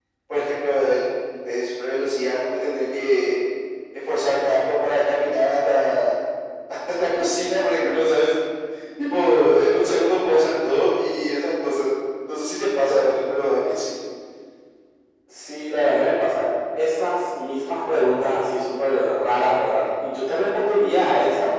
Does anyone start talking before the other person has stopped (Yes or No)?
No